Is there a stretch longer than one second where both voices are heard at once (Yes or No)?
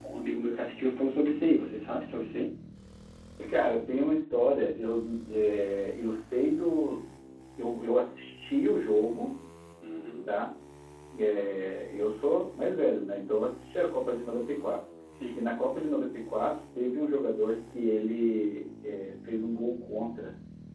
No